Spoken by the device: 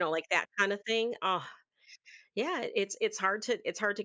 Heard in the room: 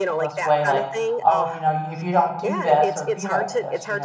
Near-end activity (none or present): present